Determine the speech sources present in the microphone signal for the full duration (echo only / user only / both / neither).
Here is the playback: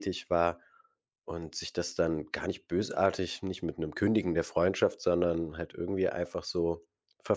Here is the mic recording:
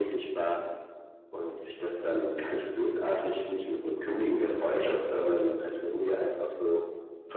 echo only